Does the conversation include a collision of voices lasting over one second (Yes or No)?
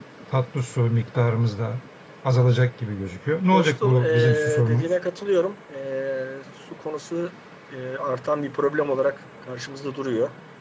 Yes